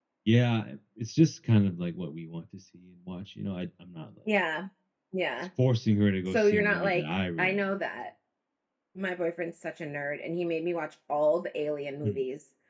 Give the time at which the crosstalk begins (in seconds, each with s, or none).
6.3 s